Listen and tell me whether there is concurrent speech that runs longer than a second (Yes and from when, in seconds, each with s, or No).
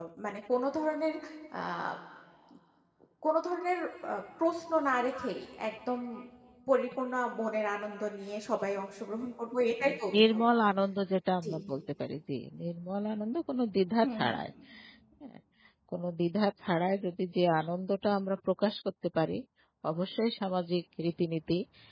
No